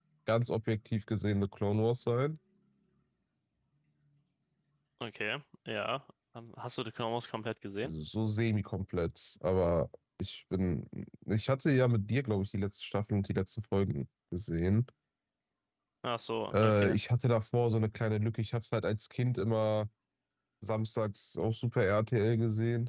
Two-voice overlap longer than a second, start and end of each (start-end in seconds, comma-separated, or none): none